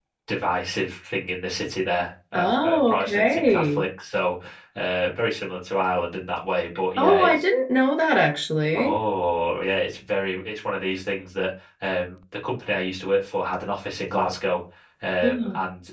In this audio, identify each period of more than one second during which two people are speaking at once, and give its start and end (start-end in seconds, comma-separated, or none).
2.3-3.8